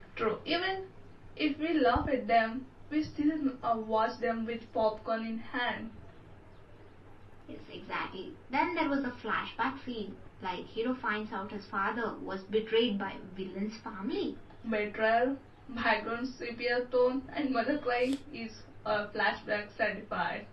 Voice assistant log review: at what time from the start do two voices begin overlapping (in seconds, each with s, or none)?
none